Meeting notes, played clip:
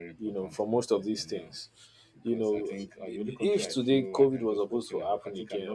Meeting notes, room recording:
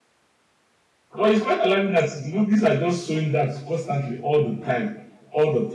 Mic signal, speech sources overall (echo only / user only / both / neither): user only